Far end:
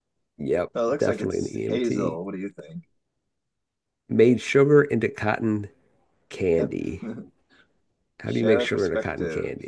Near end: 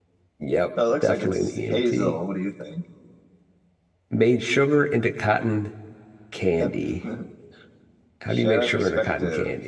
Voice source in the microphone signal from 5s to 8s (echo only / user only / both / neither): echo only